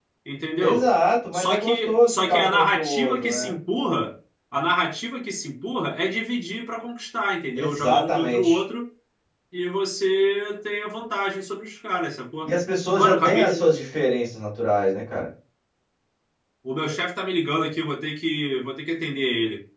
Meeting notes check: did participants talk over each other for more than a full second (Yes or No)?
Yes